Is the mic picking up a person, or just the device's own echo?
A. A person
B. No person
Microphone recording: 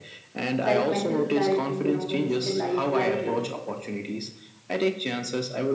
A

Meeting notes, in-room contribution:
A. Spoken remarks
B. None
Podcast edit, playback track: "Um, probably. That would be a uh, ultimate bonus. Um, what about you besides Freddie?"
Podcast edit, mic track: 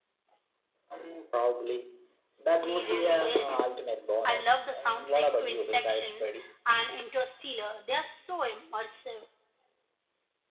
A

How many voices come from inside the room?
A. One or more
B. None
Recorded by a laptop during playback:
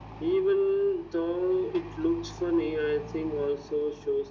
B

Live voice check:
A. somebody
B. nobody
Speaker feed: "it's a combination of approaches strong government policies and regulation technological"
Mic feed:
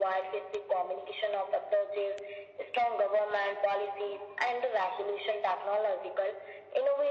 B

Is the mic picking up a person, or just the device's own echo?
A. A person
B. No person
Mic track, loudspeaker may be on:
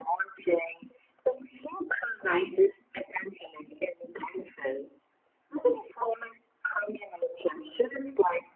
B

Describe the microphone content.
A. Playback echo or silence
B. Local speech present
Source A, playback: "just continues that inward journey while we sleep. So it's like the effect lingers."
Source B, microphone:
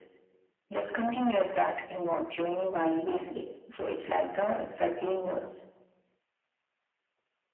A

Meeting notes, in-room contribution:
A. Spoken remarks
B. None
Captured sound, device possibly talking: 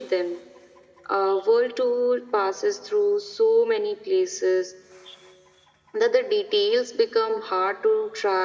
B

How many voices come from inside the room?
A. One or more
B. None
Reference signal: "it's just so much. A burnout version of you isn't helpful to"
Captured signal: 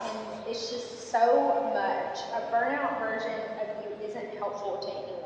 B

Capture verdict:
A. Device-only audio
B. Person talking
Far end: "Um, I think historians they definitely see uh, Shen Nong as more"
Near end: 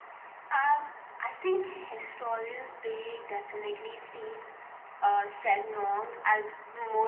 A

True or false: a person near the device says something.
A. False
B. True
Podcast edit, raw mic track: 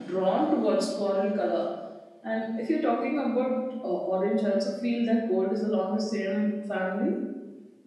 A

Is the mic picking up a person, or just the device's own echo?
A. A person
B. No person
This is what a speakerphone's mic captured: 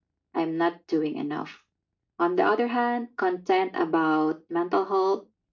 B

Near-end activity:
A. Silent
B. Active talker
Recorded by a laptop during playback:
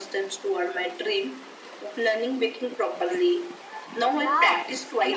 B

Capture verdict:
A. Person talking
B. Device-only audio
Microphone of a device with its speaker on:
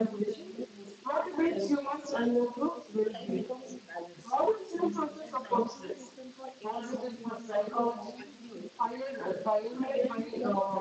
B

